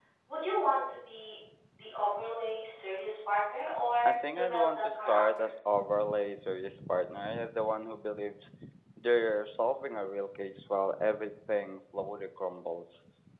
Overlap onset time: 4.0 s

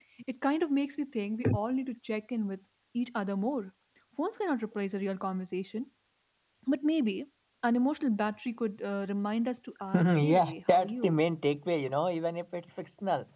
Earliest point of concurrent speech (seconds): 9.9 s

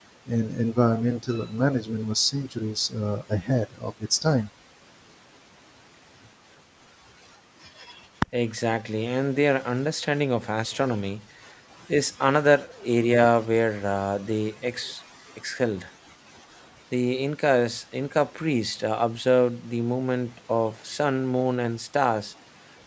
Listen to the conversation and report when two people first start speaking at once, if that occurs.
none

